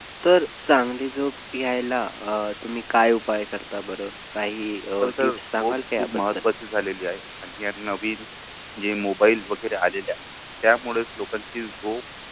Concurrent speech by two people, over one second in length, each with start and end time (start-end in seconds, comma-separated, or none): 5.0-6.3